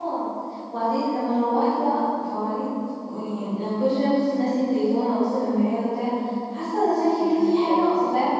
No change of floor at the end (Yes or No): Yes